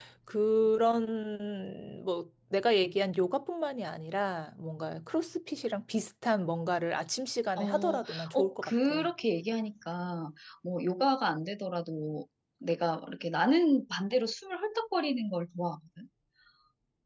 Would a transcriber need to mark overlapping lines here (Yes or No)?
Yes